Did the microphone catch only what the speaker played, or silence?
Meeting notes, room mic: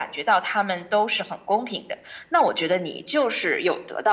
Yes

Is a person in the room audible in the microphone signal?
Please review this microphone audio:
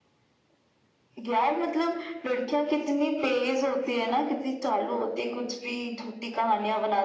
No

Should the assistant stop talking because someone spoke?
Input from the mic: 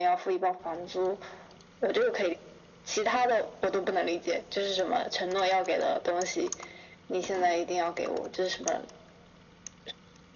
No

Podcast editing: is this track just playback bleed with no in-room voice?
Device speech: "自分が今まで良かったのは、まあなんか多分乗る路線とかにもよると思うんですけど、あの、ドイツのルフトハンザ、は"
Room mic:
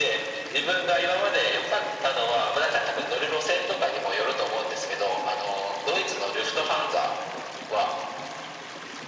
Yes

